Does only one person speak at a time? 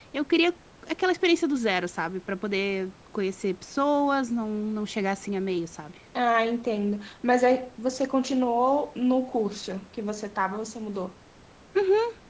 Yes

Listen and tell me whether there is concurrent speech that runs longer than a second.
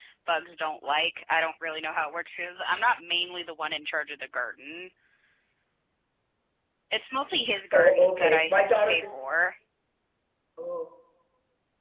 Yes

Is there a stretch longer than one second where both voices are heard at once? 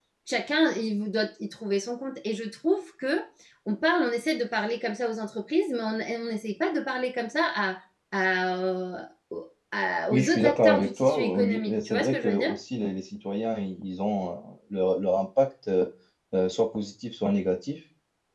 Yes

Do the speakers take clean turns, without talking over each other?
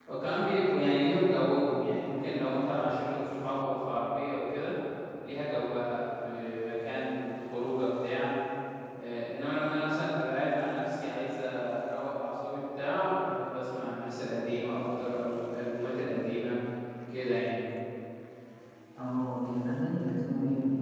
Yes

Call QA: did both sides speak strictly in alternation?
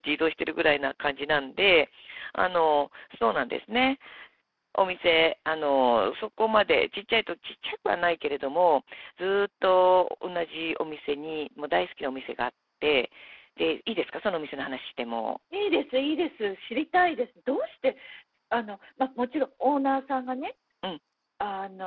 Yes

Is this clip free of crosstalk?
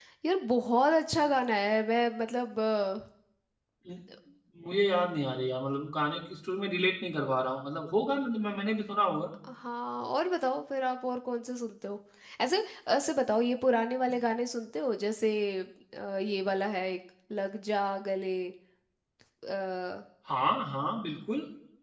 Yes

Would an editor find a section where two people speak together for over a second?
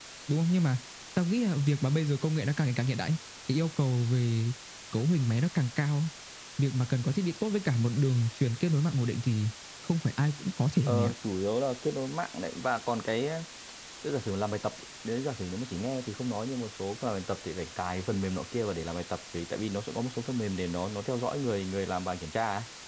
No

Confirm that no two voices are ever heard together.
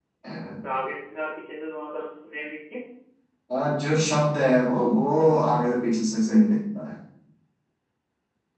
Yes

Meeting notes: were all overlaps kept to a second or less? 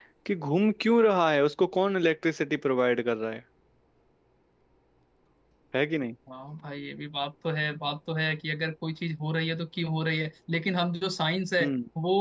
Yes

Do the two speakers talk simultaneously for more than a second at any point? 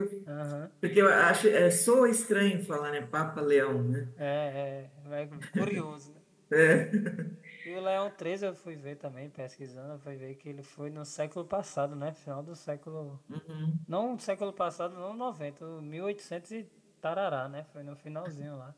No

